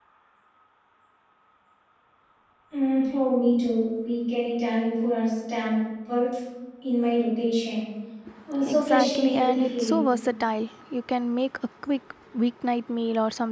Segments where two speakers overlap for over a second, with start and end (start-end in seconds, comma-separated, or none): 8.7-10.0